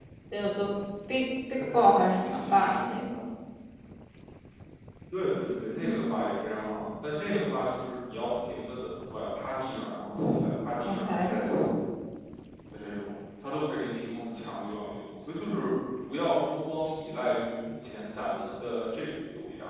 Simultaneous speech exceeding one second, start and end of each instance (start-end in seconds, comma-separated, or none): 1.5-2.9